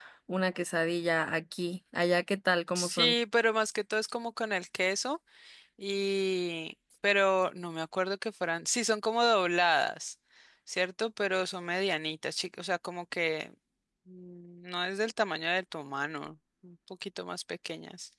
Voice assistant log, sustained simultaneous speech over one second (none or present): none